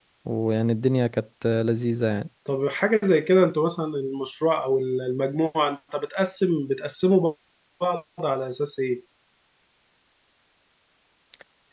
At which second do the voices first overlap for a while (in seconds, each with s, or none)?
none